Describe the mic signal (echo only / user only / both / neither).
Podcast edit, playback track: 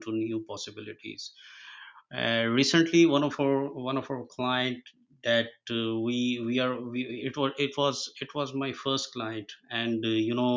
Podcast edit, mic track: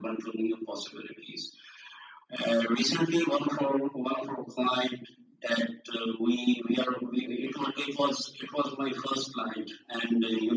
echo only